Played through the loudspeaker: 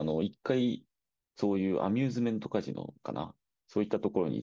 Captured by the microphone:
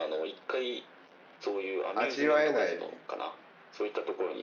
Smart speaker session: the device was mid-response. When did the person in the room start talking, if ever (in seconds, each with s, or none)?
1.9 s